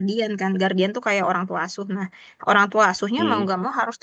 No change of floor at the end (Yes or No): Yes